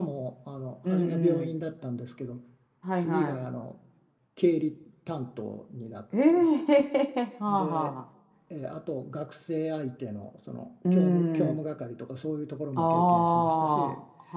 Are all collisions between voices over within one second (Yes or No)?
No